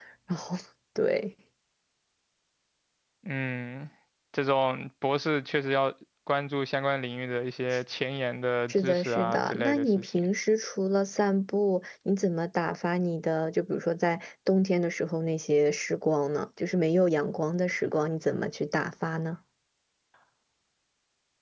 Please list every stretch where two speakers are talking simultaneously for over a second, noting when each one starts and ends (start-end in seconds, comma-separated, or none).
8.7-10.3